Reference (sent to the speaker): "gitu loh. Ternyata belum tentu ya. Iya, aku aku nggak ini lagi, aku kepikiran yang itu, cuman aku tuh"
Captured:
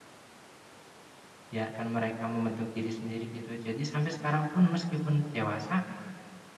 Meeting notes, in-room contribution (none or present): present